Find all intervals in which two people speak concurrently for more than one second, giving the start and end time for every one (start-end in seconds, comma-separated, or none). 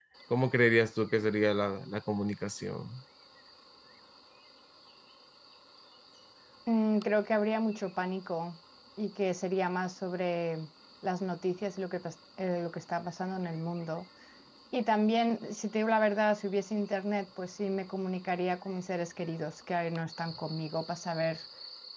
none